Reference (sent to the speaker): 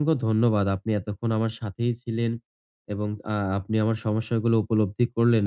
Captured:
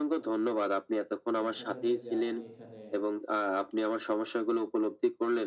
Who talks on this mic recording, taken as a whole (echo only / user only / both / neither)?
both